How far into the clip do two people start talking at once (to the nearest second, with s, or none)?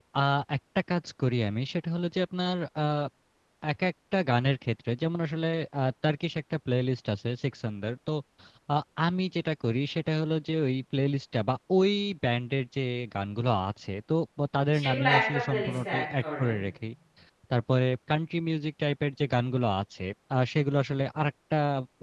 15 s